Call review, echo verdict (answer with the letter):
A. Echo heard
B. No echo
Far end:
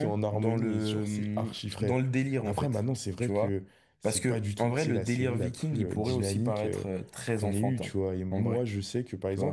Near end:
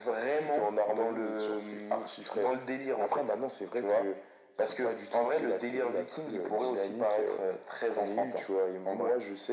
A